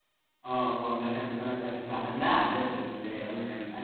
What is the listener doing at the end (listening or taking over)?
taking over